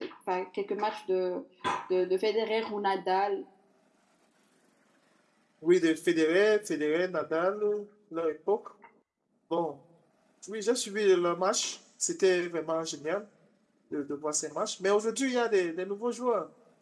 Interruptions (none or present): none